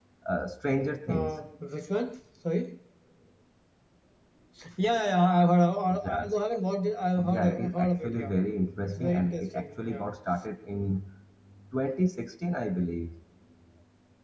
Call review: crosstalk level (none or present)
present